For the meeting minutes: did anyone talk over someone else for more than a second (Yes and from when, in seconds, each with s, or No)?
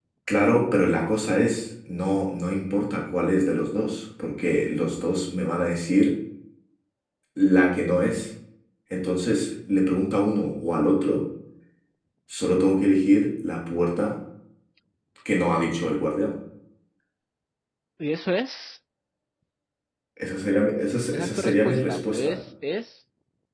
Yes, from 21.1 s